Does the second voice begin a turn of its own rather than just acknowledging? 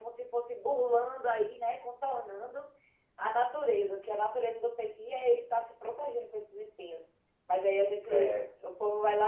No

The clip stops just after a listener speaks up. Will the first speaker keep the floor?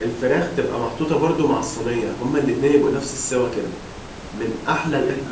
Yes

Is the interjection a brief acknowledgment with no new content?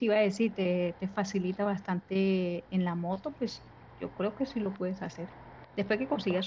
Yes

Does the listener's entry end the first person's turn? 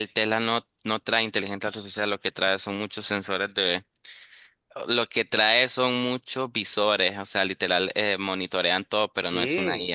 Yes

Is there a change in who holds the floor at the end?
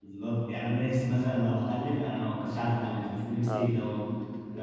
No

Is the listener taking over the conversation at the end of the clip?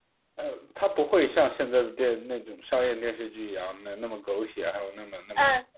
Yes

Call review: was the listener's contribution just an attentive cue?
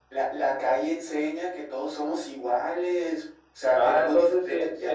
No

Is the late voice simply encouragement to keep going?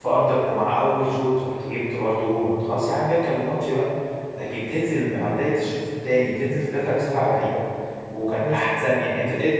Yes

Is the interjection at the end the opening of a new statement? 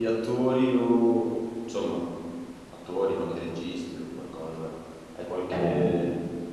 No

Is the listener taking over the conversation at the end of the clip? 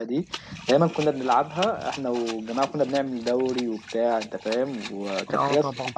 No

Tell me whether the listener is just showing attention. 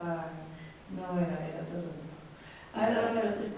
Yes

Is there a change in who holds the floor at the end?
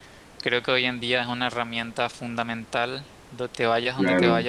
Yes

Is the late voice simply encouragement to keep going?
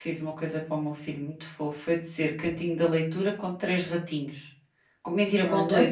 Yes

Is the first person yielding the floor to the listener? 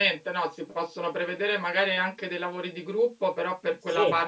No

